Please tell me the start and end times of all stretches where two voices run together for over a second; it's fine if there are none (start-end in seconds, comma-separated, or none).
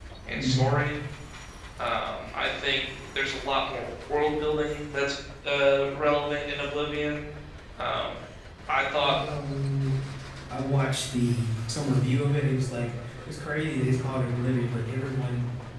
none